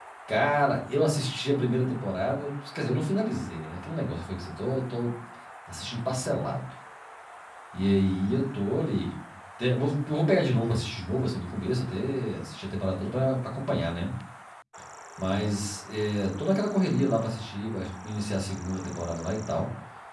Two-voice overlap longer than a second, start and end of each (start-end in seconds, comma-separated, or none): none